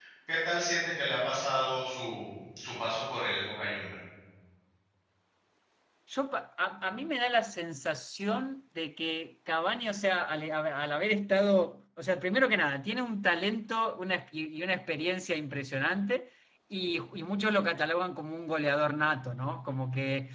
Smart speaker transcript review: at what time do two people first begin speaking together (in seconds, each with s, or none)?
none